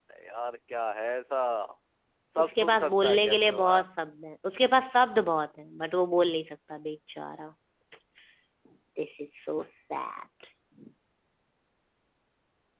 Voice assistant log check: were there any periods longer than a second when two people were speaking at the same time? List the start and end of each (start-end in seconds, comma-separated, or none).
2.4-3.9